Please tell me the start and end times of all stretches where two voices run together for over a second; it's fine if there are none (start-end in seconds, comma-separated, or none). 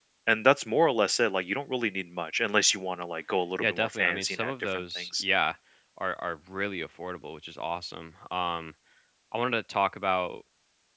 3.6-5.2